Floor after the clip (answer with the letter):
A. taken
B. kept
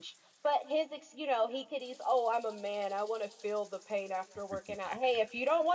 B